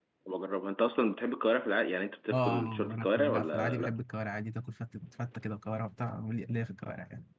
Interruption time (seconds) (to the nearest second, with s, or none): 2 s